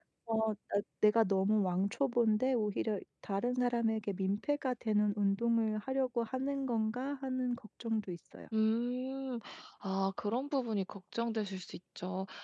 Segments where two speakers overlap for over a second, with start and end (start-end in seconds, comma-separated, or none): none